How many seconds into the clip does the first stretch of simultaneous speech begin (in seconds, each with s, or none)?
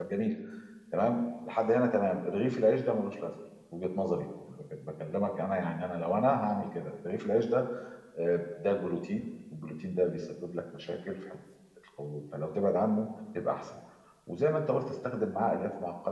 none